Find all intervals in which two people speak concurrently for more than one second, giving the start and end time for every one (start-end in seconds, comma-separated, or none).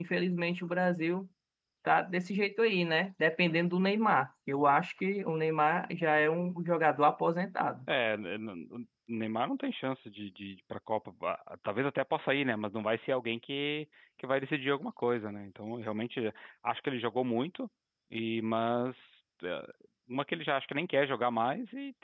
none